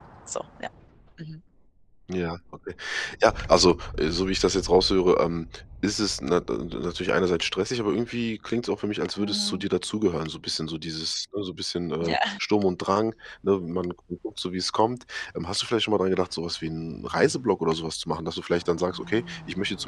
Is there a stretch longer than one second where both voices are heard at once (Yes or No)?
No